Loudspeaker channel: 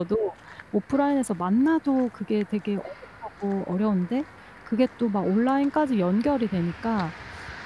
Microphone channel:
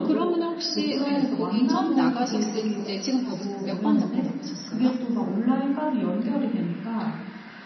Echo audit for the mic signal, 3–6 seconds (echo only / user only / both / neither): both